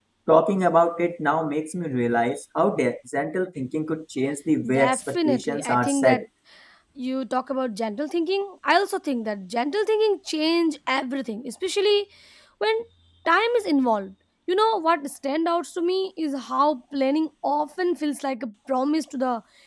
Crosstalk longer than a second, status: present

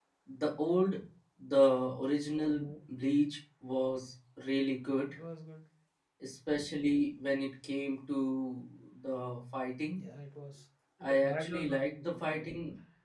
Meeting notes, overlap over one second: present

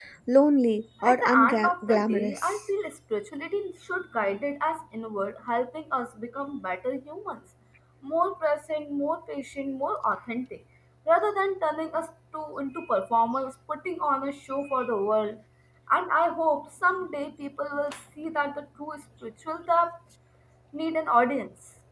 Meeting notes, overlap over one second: present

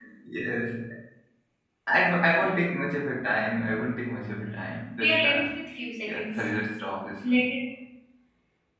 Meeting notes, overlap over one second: none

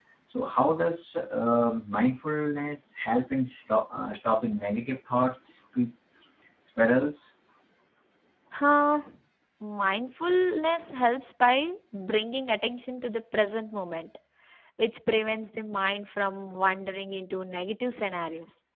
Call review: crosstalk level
none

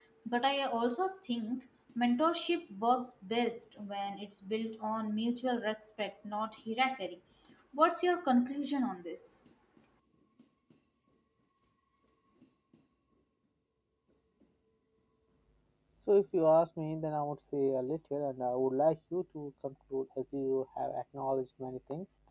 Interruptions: none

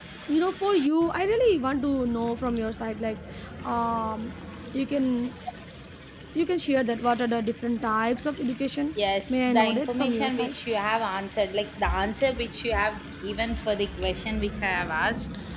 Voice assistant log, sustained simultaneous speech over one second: present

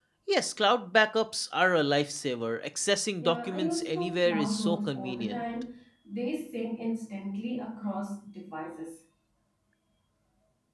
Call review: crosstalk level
present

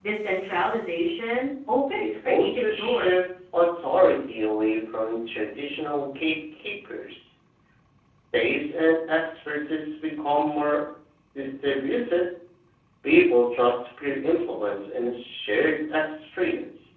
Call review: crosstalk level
present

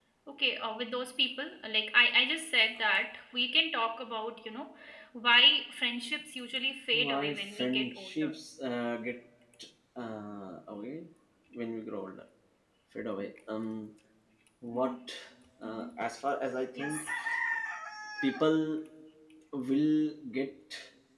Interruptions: present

